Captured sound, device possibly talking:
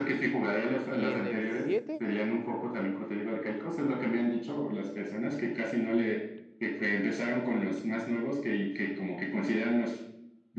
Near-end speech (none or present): present